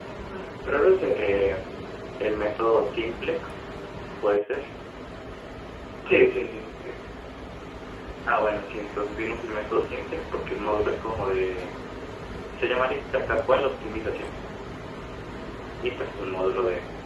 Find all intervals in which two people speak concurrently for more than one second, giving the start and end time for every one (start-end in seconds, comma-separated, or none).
none